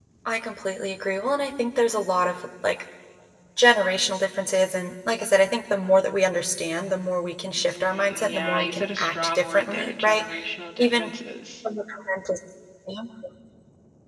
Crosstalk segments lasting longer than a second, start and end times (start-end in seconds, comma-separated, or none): 7.6-10.2